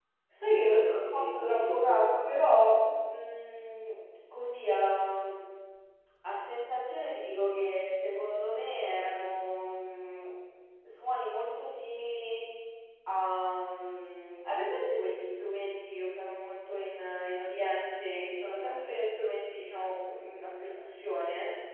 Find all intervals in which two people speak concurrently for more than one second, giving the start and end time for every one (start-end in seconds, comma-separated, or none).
0.7-2.2